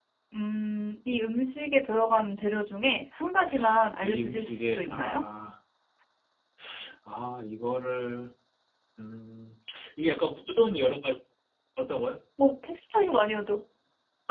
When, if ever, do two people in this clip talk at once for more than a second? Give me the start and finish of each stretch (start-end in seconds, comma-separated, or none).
4.0-5.2